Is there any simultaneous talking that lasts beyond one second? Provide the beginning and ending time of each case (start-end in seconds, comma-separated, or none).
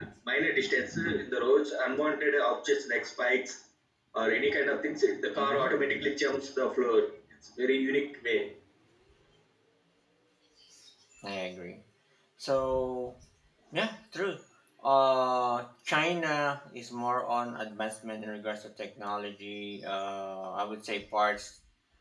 none